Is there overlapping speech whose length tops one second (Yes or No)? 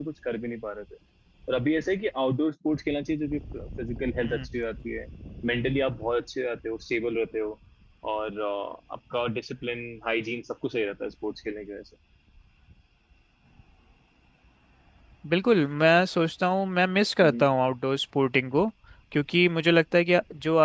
No